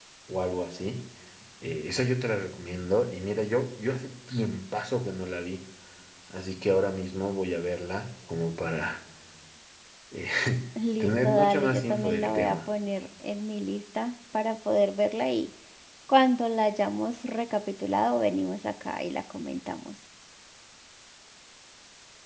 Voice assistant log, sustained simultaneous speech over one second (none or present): present